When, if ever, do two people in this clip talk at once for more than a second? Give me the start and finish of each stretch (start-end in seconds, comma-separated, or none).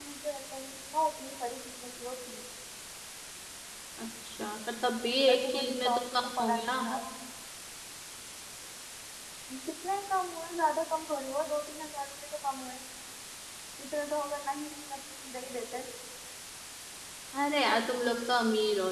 5.3-6.7